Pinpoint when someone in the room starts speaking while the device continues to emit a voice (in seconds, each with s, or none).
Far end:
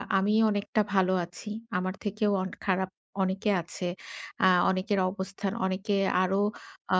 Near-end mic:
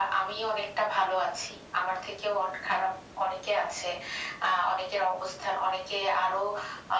none